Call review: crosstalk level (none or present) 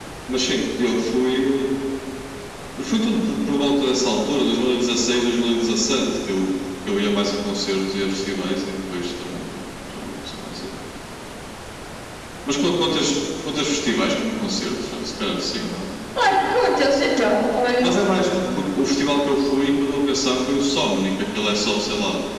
none